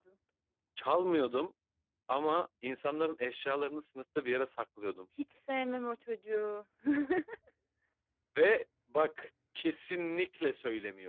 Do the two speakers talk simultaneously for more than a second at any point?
No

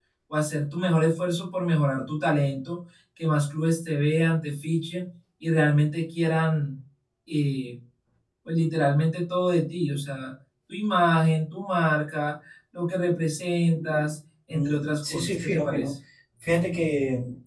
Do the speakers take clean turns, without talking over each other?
No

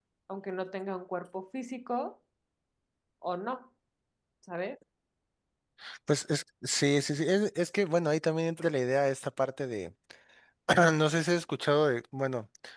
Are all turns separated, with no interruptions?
Yes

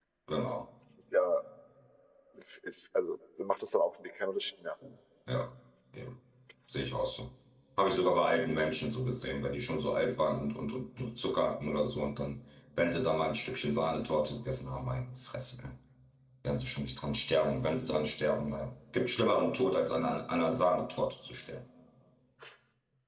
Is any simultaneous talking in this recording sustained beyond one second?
No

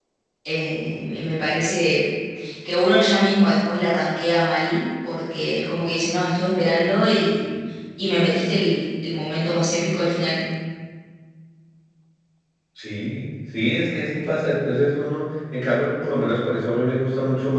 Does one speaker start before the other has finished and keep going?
No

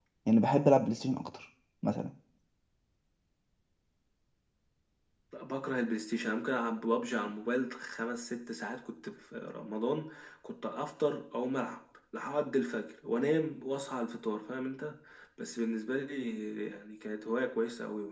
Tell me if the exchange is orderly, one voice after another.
Yes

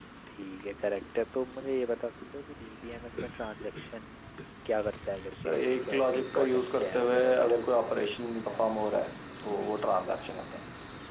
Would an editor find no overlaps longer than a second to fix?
No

